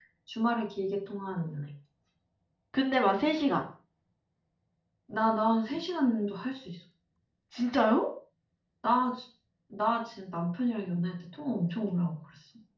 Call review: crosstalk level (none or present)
none